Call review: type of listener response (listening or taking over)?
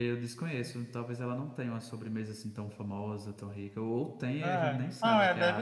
taking over